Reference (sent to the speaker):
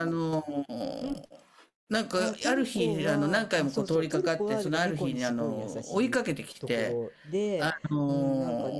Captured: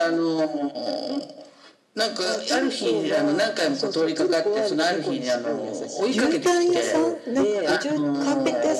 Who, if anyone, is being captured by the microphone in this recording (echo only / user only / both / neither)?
both